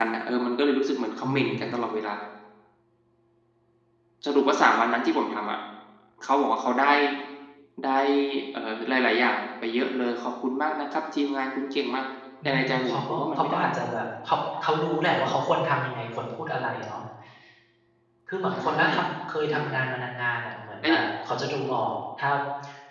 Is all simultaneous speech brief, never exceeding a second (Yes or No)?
No